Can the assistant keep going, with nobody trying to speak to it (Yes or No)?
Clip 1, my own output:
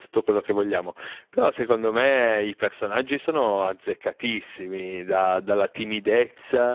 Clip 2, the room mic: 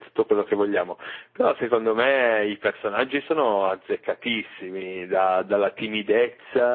Yes